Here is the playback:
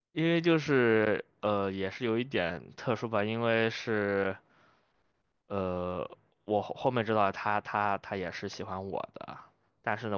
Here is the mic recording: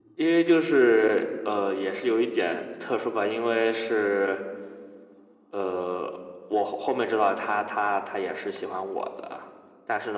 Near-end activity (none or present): none